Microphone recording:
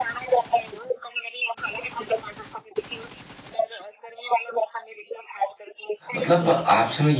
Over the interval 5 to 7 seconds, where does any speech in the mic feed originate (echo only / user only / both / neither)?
both